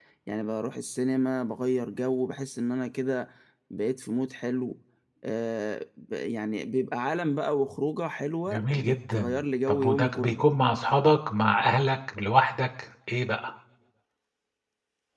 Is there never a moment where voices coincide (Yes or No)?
No